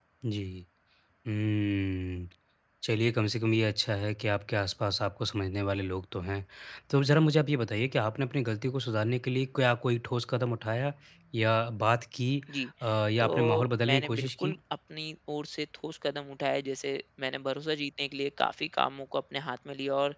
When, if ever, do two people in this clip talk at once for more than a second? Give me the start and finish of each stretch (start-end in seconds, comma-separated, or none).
13.2-14.6